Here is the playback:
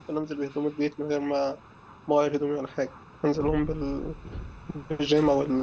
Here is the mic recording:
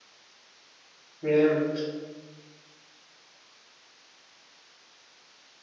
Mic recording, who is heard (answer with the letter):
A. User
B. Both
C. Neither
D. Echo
A